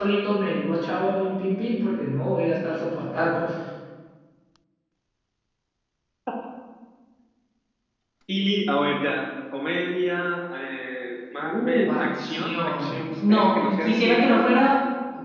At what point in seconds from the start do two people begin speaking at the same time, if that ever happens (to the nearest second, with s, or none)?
11 s